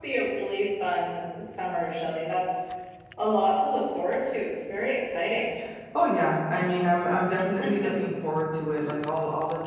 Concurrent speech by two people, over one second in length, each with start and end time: none

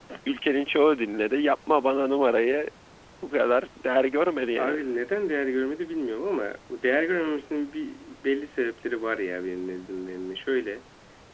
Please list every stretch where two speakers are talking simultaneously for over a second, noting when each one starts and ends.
none

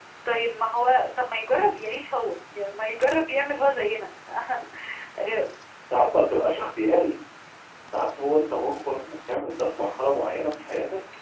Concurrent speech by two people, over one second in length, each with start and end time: none

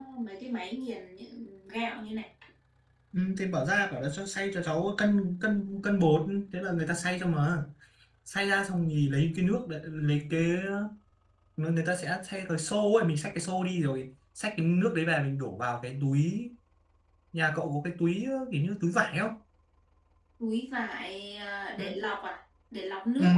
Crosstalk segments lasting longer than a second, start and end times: none

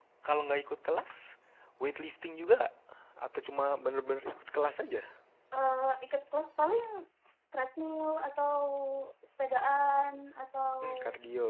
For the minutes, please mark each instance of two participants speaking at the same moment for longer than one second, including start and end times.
none

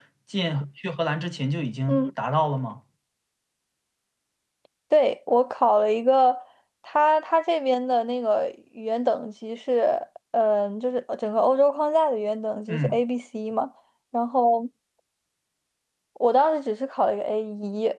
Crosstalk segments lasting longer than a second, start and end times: none

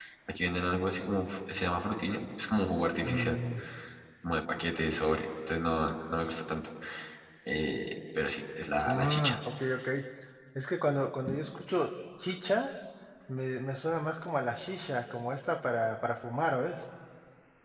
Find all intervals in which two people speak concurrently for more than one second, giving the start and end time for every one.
none

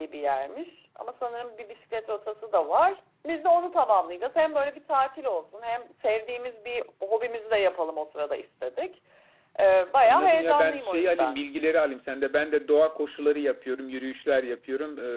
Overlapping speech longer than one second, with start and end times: 10.0-11.4

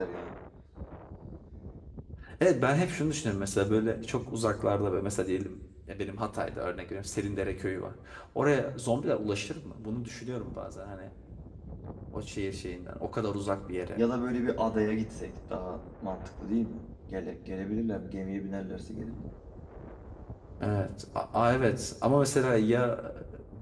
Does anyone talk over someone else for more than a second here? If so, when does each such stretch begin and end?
none

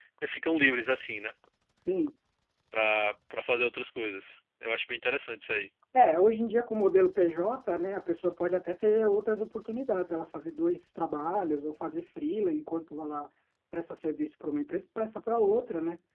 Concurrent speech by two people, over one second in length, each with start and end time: none

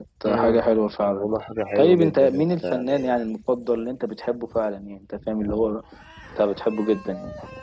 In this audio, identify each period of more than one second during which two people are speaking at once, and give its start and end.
1.8-3.2

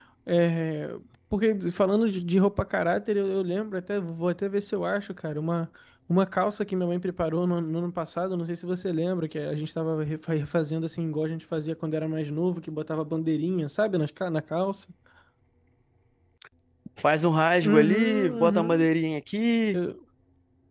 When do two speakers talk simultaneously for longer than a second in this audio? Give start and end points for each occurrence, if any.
17.6-18.9

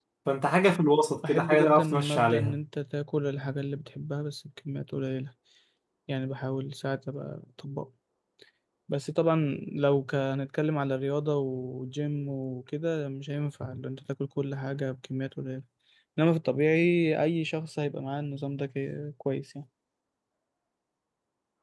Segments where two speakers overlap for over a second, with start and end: 1.3-2.6

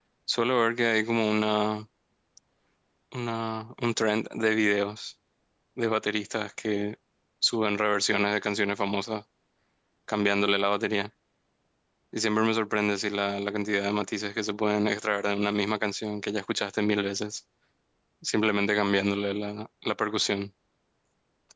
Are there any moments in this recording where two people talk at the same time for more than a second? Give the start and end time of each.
none

